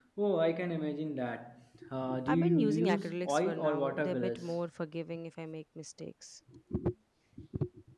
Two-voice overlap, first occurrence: 2 s

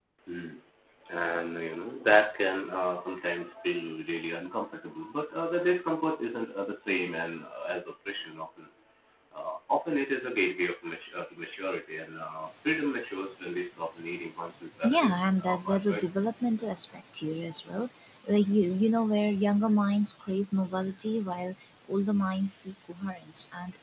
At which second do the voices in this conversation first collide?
15 s

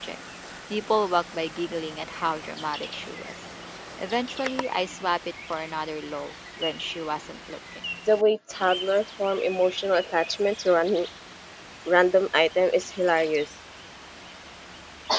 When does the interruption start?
none

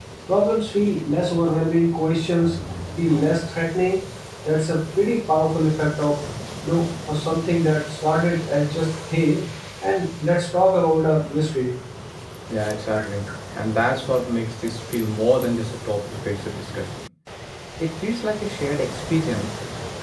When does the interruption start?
none

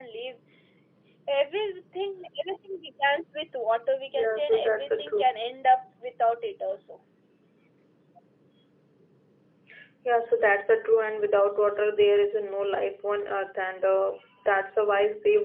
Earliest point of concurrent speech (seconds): 4 s

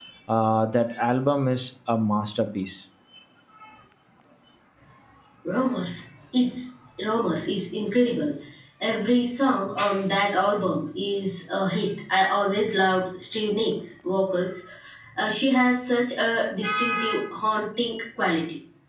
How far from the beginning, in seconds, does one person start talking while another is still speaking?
none

